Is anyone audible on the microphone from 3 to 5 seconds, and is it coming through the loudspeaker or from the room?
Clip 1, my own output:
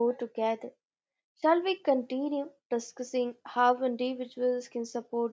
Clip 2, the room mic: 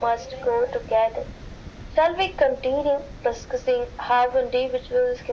echo only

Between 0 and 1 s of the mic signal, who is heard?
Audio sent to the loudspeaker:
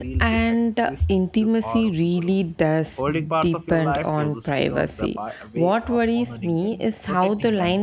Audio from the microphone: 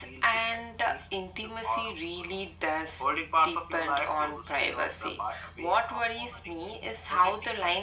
echo only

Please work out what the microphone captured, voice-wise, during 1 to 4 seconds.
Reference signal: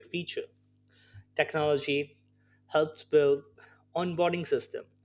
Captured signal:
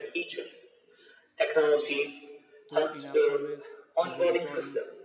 both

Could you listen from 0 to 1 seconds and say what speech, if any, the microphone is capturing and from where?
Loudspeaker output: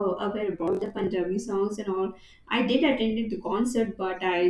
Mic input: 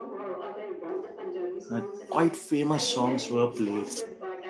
echo only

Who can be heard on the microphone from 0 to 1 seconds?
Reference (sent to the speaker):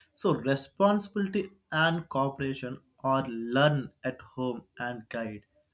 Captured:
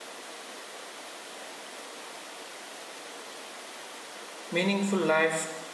neither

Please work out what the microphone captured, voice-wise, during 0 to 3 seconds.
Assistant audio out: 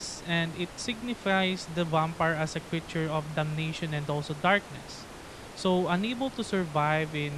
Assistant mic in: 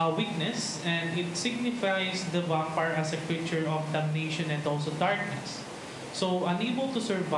echo only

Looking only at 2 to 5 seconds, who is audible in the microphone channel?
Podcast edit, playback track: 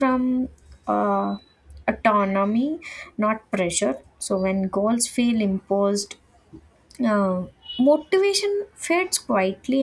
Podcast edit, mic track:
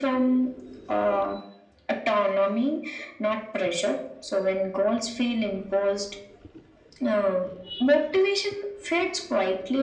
echo only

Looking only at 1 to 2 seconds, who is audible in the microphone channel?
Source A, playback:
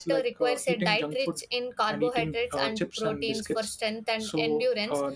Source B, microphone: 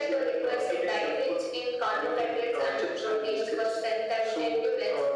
echo only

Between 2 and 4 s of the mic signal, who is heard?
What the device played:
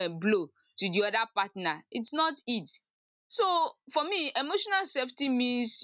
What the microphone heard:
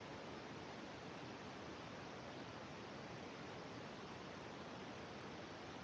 neither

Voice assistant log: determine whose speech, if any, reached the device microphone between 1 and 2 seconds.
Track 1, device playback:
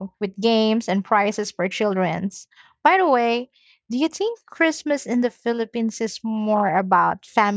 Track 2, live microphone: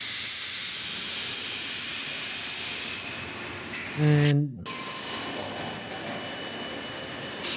neither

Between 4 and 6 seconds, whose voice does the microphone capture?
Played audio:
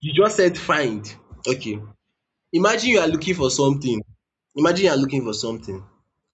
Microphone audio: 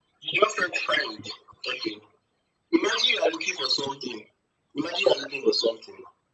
echo only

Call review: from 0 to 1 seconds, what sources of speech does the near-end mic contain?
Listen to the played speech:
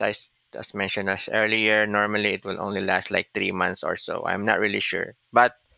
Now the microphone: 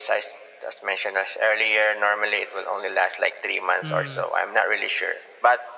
echo only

